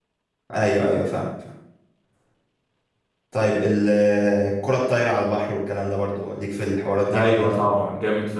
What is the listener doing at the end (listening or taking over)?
taking over